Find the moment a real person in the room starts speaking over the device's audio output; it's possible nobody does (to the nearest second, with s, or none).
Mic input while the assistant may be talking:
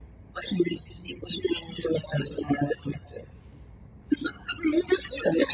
none